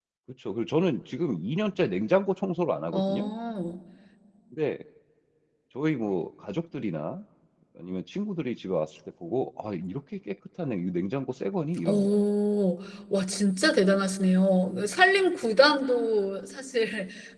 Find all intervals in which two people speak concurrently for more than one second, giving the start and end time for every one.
none

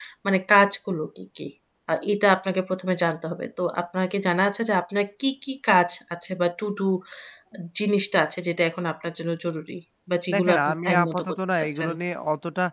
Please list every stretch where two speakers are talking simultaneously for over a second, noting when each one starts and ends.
10.3-11.9

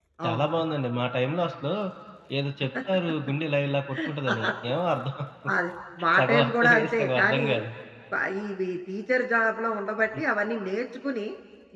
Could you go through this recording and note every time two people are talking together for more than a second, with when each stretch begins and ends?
6.2-7.5

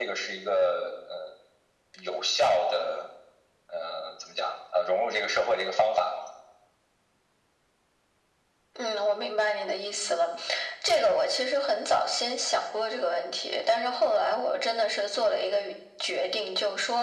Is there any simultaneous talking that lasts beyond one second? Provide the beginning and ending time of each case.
none

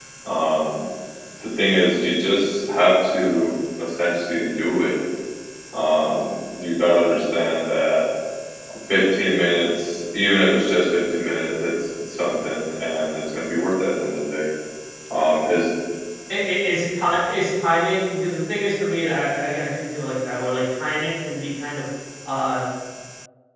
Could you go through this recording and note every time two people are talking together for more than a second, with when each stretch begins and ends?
none

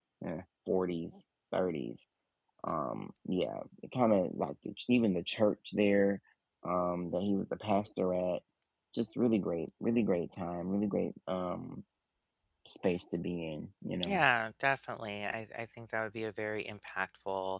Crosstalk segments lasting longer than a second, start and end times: none

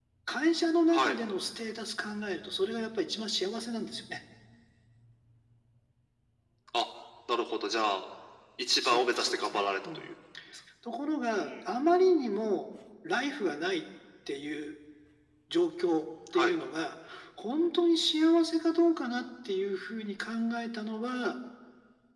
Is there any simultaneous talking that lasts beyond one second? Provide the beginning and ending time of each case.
8.8-10.1

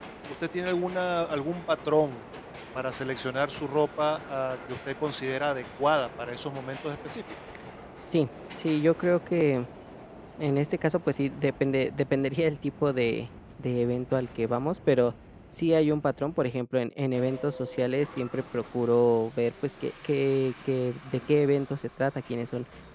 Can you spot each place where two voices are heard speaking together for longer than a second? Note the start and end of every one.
none

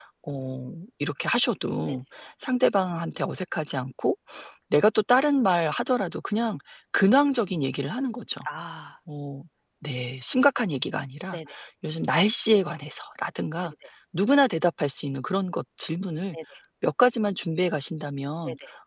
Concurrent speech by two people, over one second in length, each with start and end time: none

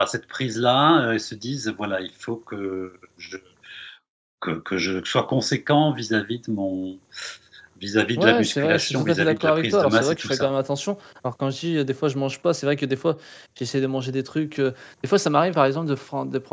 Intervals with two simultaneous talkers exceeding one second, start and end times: 8.2-10.5

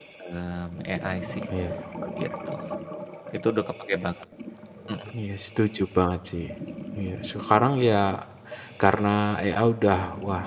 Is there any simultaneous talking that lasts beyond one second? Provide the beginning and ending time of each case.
none

